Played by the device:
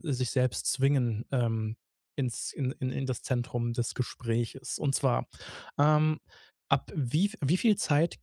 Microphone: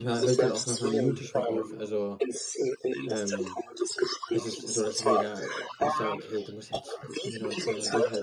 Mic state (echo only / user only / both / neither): both